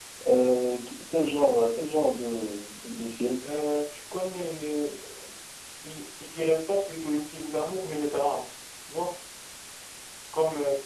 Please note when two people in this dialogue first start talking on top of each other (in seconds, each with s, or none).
none